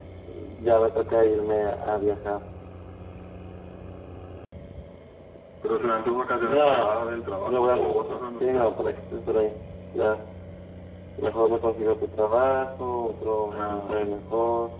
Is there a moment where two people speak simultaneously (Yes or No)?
Yes